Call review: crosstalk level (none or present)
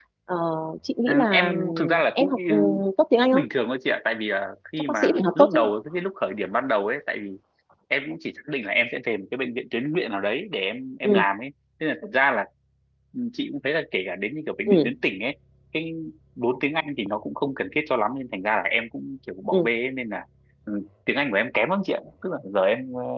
present